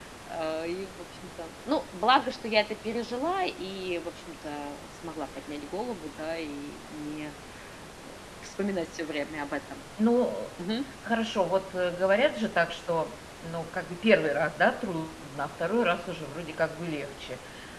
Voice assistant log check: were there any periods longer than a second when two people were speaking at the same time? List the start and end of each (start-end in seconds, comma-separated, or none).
none